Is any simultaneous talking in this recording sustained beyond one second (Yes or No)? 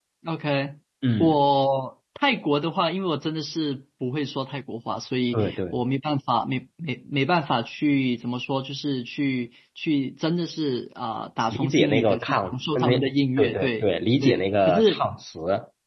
Yes